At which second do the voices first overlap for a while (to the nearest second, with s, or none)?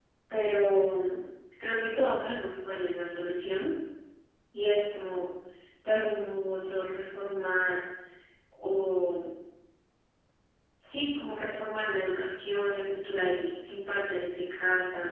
none